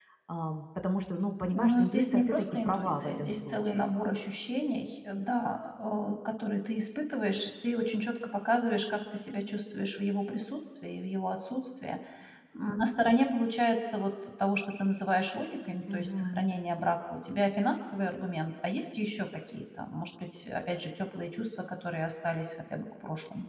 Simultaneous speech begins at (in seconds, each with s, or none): 1.5 s